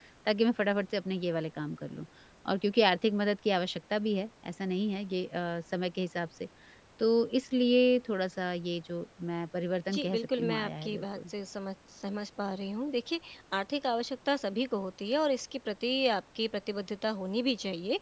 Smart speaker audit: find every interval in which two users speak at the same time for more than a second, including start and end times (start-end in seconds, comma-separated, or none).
9.9-11.3